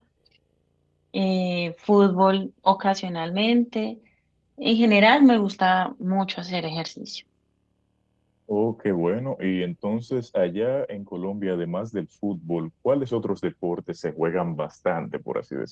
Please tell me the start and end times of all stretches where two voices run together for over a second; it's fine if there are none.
none

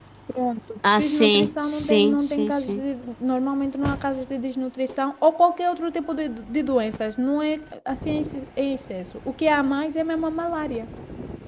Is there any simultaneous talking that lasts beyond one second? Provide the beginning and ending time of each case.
1.0-2.8

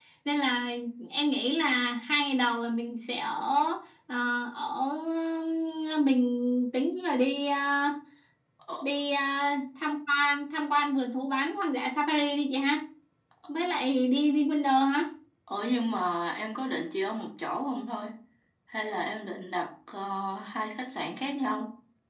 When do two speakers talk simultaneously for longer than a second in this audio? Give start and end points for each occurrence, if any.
none

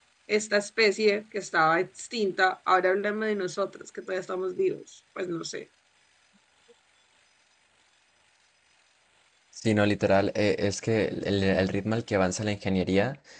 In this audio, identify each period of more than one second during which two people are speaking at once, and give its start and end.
none

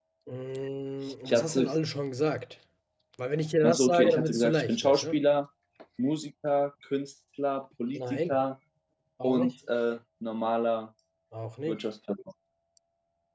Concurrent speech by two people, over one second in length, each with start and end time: 3.6-5.1

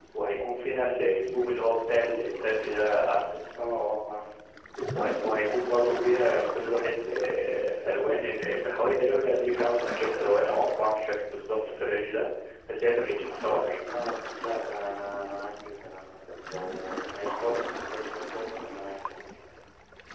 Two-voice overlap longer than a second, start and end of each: none

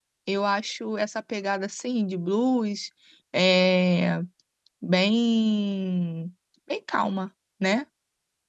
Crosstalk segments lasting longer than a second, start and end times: none

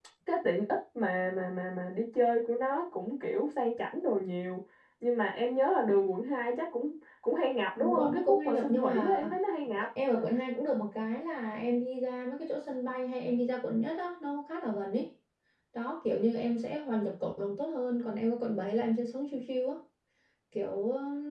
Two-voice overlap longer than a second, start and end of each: 7.8-9.2

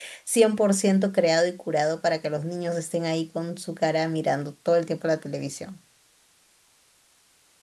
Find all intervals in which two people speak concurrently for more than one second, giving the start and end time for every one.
none

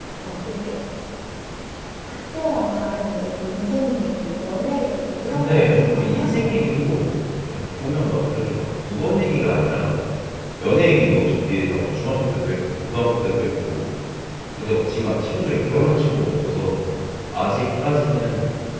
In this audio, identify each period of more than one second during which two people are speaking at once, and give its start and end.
5.3-6.6

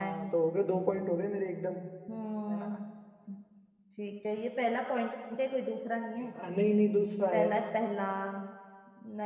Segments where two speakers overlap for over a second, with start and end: none

